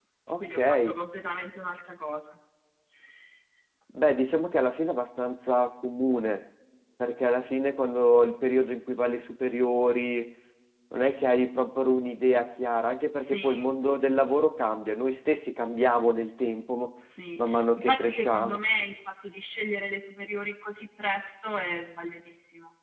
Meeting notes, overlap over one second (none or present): present